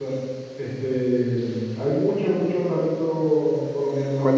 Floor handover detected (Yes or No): Yes